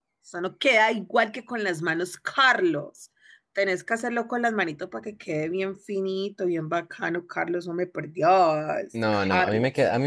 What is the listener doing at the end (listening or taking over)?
taking over